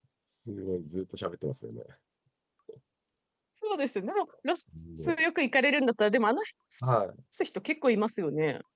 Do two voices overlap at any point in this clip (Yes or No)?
No